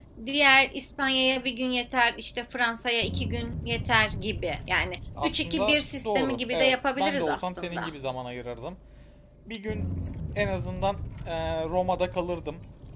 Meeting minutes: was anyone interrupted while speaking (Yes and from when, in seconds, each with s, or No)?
Yes, from 5.2 s